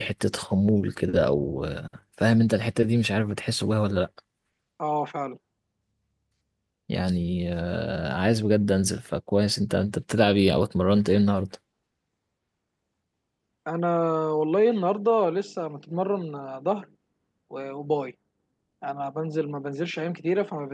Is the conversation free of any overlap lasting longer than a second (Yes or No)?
Yes